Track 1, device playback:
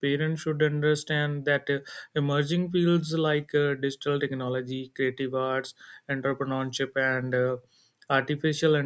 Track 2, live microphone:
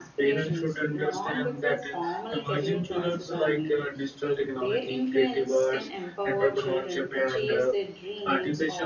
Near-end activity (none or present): present